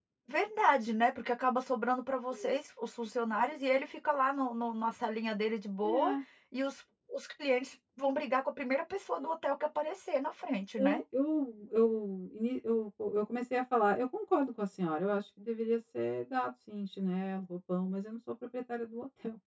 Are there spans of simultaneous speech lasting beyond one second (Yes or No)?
No